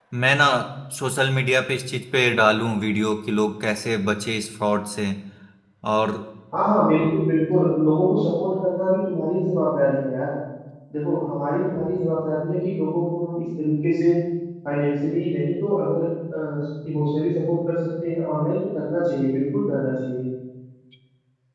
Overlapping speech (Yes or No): No